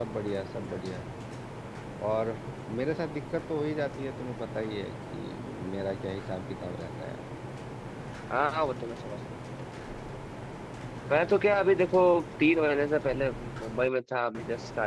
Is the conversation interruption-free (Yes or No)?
Yes